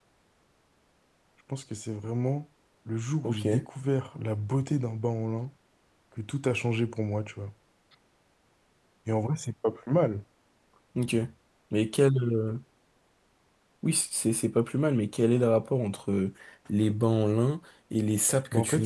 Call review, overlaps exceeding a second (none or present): none